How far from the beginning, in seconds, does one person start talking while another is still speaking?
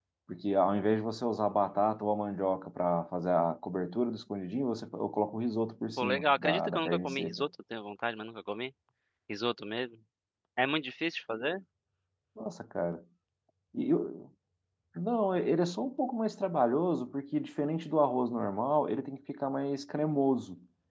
6.0 s

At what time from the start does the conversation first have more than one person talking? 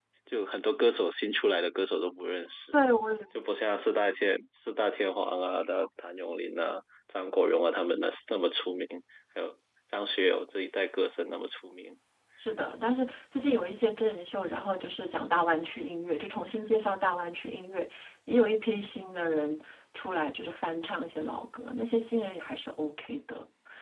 none

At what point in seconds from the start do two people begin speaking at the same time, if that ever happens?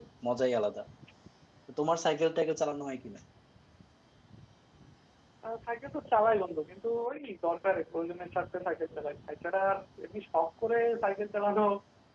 none

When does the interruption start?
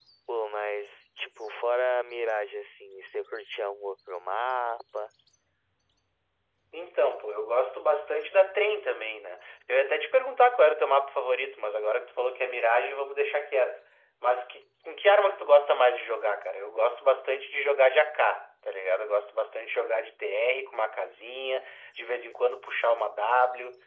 none

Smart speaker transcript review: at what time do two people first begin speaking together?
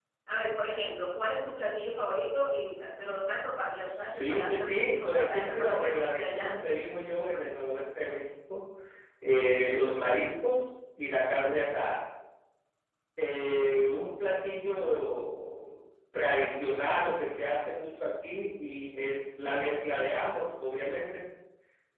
3.8 s

